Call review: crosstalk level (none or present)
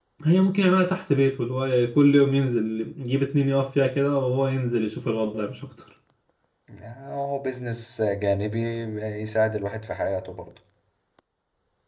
none